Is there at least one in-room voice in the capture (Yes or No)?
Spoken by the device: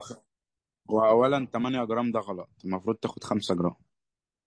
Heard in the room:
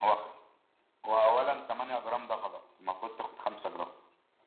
No